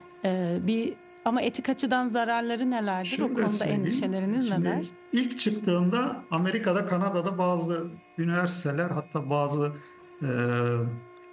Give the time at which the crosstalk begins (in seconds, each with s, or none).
3.0 s